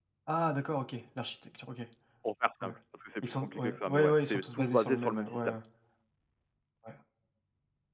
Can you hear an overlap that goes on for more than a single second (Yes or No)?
Yes